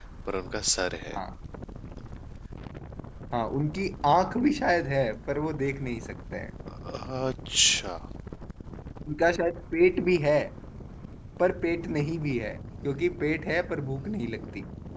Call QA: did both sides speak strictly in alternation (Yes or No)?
Yes